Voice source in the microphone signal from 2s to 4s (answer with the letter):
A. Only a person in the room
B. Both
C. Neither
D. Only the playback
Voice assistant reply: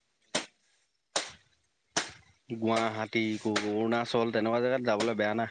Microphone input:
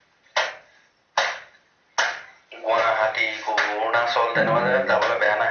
D